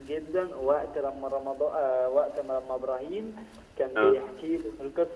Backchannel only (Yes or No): Yes